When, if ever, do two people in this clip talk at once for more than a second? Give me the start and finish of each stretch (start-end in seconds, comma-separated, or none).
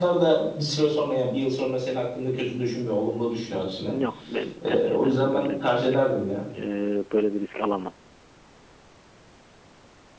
4.7-6.0